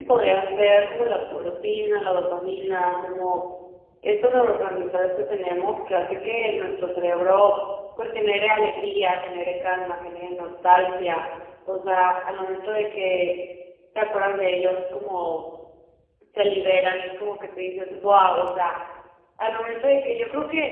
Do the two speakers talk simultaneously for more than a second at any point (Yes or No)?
Yes